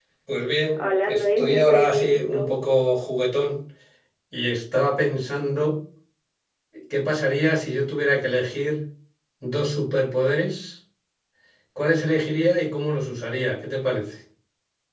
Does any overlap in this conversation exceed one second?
Yes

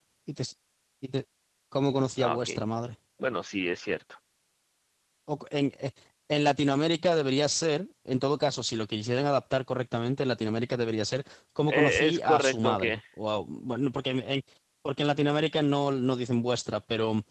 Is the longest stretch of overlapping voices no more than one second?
No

